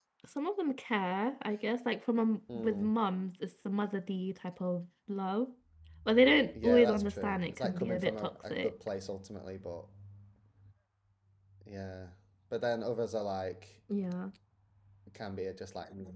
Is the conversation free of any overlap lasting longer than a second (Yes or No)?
No